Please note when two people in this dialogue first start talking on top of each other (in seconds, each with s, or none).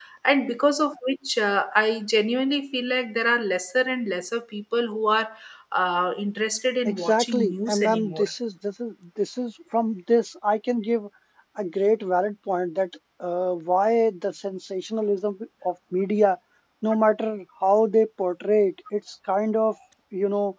6.8 s